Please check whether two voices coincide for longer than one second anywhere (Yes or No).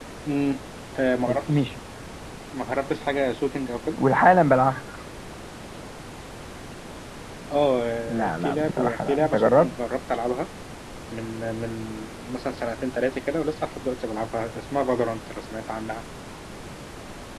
Yes